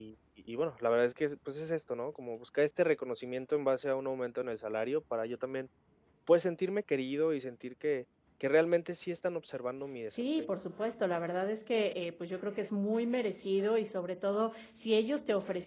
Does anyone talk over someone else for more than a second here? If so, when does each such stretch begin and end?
none

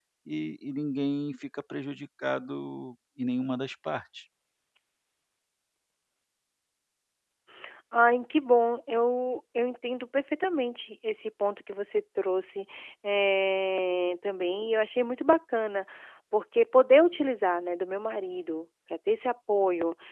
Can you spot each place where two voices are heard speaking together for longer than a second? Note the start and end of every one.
none

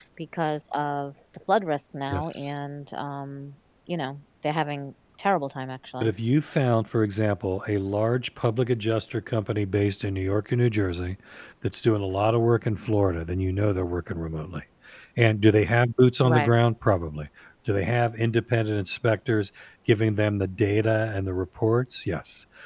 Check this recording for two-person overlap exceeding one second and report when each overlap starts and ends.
none

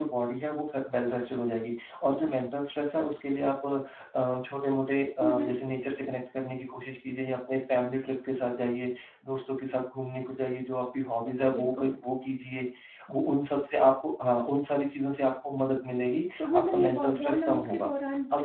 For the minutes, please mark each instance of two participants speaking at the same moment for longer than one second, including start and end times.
16.4-17.9

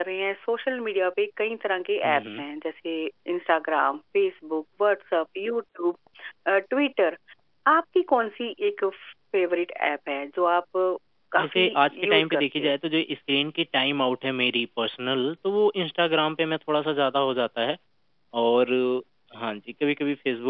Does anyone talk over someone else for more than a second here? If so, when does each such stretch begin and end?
11.4-12.7

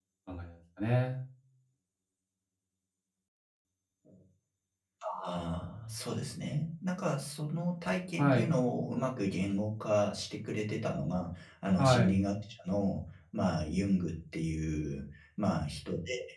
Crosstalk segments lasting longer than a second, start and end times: none

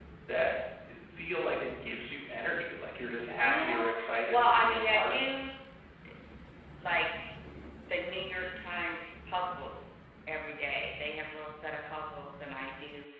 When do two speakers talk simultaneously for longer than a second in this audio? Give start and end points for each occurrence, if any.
3.3-5.3

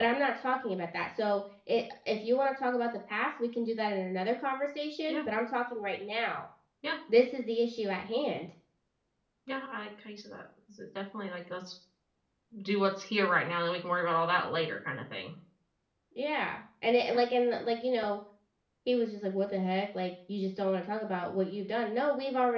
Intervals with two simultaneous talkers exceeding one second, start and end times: none

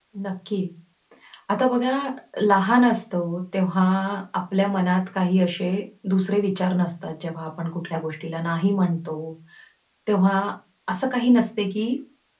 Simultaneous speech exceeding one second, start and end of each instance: none

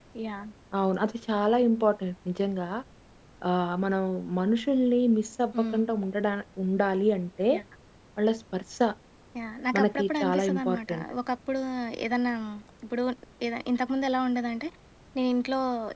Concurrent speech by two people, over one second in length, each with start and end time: 9.7-11.0

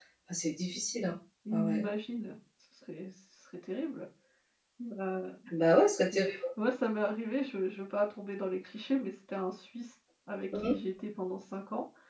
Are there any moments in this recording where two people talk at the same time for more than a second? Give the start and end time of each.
none

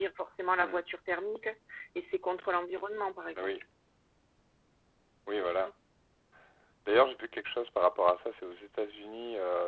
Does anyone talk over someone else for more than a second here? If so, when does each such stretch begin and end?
none

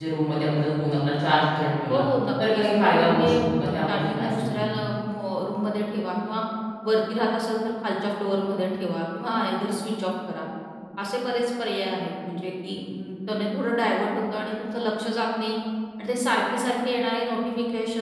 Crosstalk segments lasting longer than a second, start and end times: 2.5-4.6

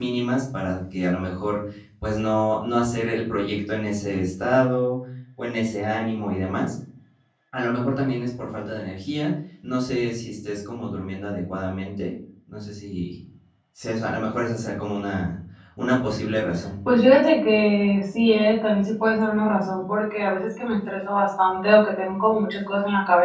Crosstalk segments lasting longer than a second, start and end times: none

